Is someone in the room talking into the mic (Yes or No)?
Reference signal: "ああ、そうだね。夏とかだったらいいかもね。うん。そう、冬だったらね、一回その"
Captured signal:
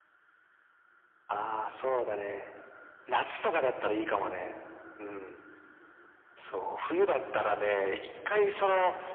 No